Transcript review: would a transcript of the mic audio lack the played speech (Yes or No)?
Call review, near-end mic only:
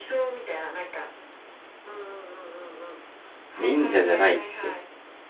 No